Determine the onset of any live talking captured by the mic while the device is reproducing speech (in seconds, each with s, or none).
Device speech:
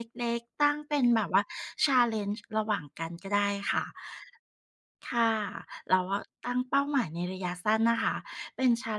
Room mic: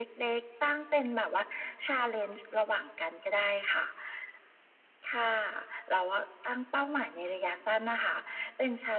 none